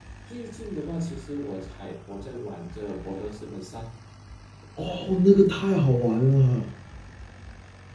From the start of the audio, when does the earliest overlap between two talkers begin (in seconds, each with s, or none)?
none